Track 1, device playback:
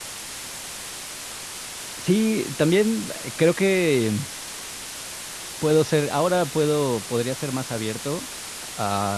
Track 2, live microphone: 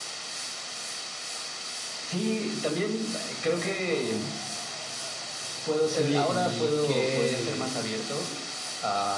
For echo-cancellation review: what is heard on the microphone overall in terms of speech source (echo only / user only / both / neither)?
both